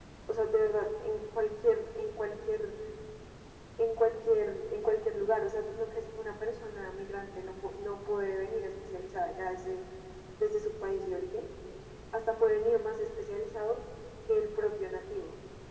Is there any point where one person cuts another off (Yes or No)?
No